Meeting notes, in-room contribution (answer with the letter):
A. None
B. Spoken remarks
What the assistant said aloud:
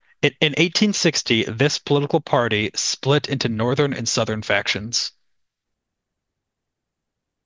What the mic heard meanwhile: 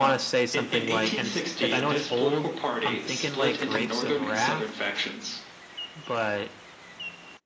B